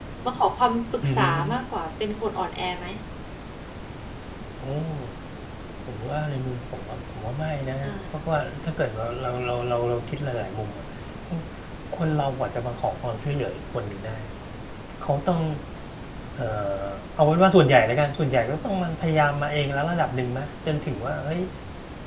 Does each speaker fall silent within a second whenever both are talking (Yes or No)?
Yes